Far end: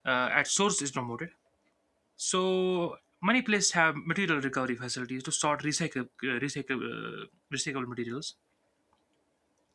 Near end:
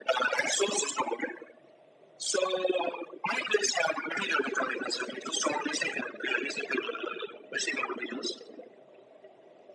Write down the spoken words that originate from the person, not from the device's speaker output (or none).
none